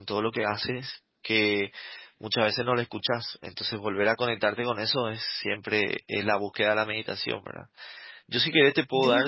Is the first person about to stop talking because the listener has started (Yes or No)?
No